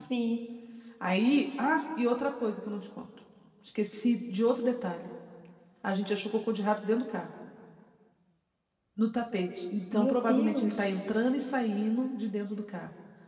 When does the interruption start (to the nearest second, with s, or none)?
10 s